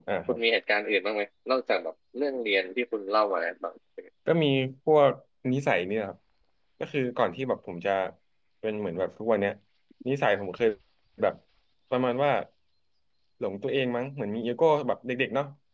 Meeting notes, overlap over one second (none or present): none